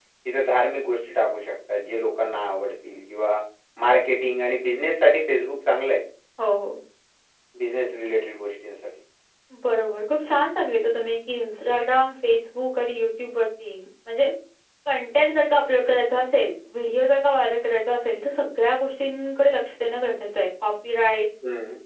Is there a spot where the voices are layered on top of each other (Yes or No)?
No